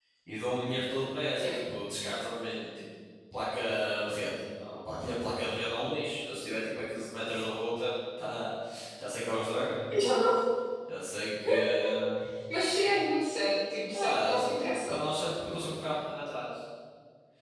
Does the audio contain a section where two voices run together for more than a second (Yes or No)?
No